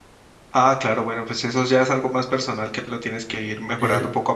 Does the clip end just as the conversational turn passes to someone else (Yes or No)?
Yes